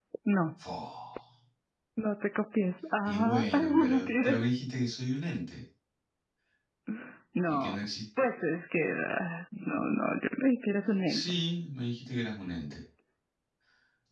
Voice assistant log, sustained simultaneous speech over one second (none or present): present